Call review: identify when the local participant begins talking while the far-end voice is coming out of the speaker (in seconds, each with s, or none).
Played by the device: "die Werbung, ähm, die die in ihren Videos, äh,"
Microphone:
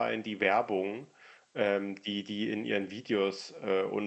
none